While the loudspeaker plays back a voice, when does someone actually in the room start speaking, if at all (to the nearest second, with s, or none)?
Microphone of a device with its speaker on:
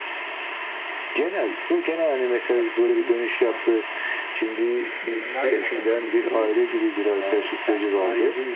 5 s